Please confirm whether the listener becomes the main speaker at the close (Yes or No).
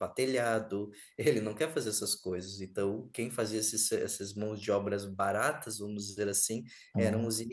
No